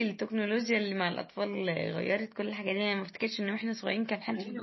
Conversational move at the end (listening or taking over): taking over